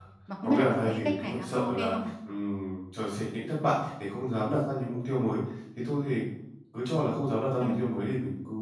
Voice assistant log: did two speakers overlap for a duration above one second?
Yes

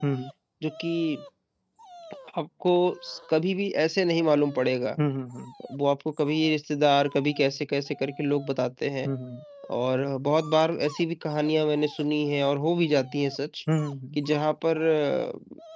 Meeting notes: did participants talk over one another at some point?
No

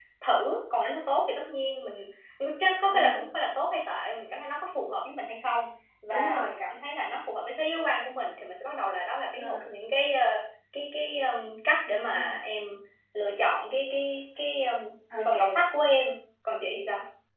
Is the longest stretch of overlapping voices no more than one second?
Yes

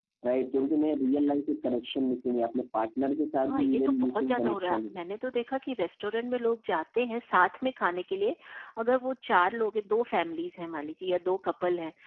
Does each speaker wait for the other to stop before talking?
No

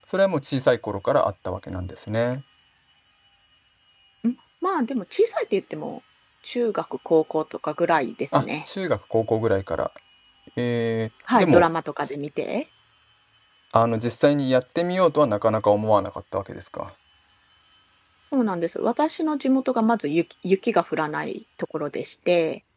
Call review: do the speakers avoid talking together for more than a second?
Yes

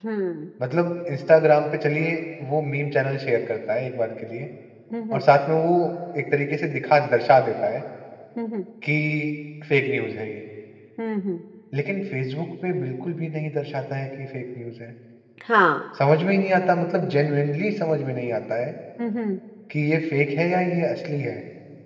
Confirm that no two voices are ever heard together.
Yes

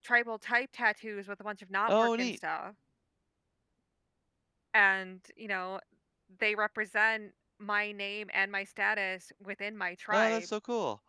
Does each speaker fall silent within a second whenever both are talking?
Yes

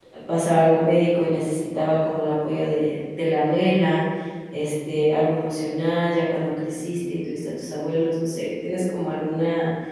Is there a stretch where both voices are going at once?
No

